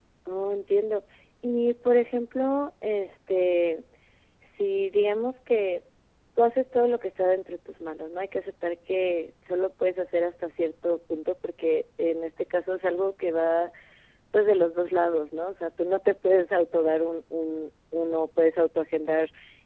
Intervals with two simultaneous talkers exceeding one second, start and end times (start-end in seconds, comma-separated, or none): none